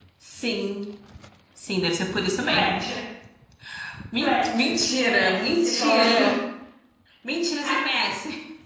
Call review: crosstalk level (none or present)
present